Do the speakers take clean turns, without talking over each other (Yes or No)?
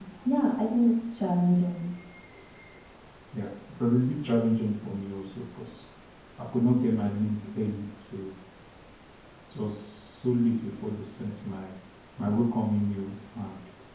Yes